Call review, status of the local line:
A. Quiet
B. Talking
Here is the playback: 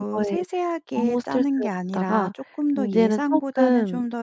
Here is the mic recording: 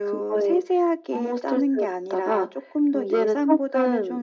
A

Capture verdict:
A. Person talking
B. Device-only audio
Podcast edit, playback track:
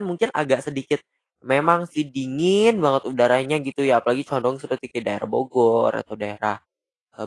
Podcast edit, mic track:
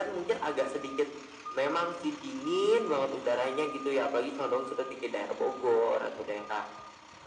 B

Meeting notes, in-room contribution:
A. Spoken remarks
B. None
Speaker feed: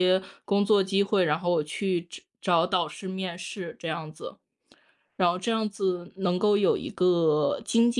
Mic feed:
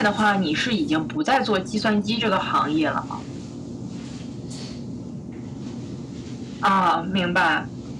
A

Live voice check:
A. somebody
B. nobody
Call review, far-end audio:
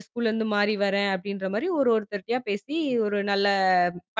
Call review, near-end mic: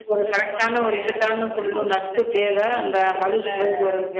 A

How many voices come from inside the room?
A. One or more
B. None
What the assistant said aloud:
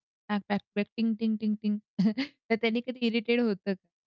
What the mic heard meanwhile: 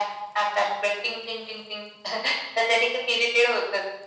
B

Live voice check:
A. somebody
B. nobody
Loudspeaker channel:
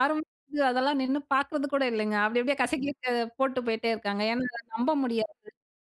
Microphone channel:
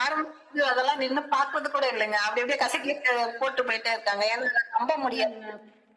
A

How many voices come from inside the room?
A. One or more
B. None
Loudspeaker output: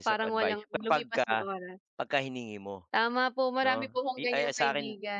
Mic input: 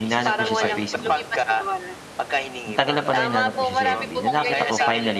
A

